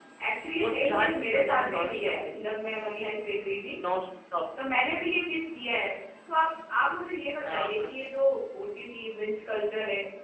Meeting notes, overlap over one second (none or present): present